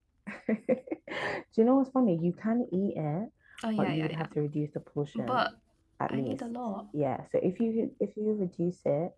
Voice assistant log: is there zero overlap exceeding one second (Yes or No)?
Yes